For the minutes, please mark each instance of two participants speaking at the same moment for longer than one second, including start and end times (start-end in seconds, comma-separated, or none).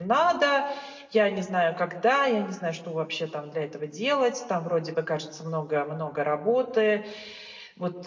none